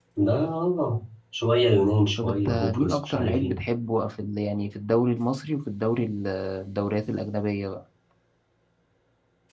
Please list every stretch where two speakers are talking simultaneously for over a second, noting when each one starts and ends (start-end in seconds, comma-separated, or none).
2.2-3.6